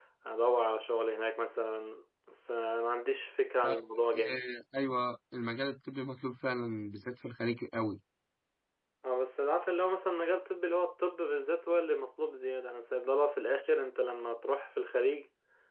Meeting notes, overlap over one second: none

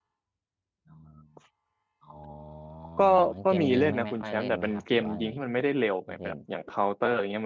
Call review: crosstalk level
present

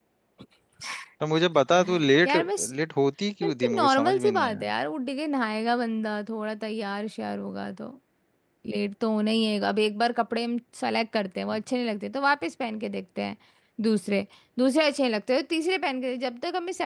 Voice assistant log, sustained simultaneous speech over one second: present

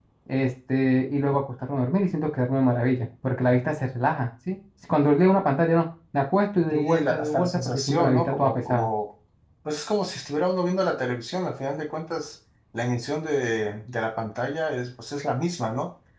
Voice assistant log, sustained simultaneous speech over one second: present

